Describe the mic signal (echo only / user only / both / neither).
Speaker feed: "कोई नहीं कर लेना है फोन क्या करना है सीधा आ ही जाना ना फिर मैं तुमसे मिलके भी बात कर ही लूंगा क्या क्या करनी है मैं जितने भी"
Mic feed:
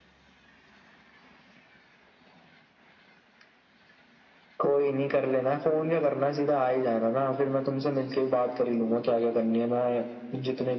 echo only